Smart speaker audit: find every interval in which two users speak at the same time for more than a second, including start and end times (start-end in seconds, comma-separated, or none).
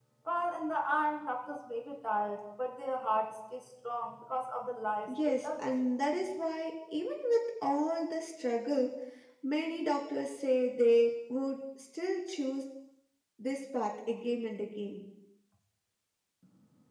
none